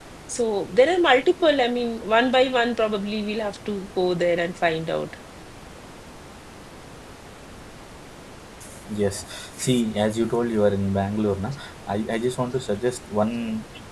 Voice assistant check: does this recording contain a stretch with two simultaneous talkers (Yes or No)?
No